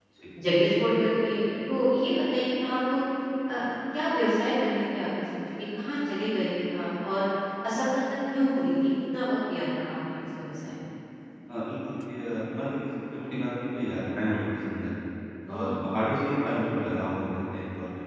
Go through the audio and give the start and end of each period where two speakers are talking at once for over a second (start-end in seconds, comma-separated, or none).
none